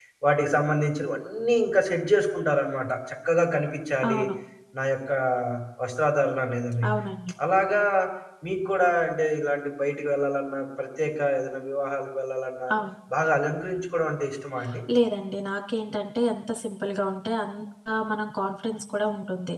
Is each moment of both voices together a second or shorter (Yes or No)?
Yes